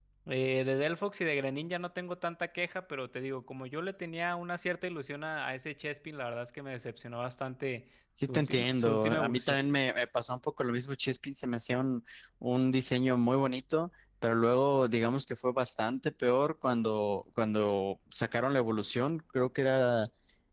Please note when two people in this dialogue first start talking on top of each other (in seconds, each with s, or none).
8.2 s